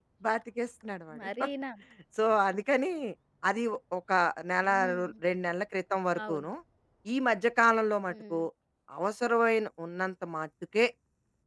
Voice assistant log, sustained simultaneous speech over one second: none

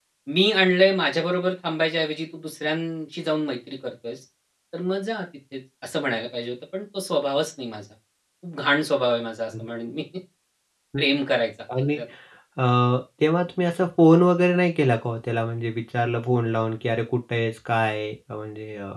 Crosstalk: none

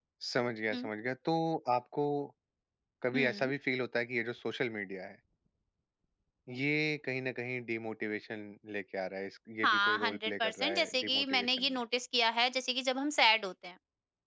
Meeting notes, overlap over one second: present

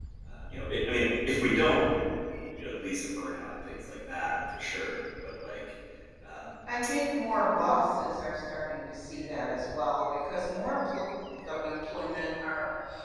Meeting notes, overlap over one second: none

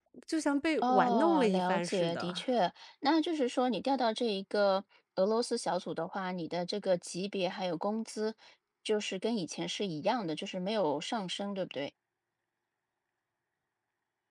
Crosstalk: present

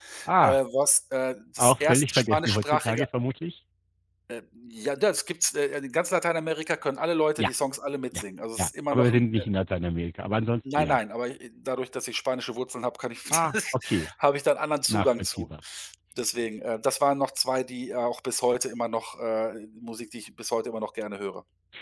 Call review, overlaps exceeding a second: present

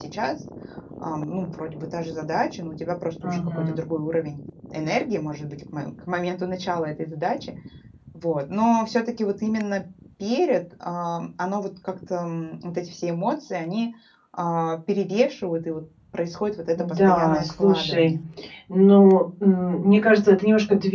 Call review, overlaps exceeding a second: present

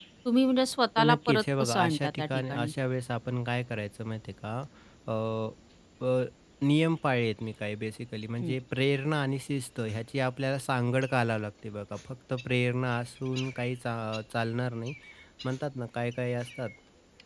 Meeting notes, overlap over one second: present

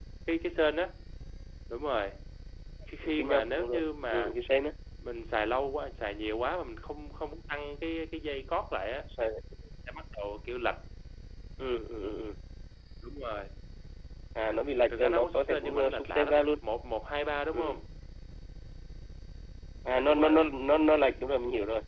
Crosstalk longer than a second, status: present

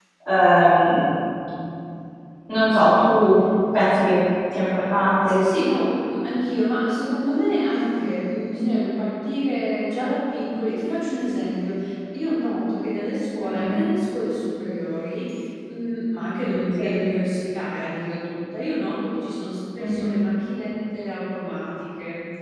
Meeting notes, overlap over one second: none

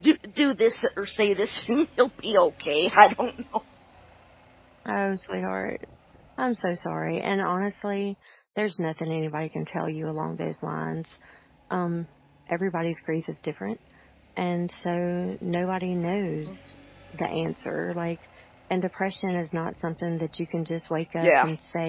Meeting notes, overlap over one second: none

